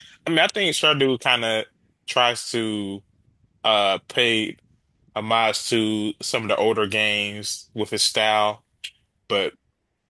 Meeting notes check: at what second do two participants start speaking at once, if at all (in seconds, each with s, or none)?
none